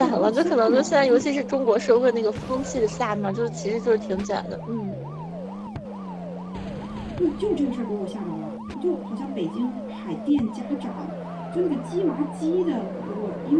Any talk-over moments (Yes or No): Yes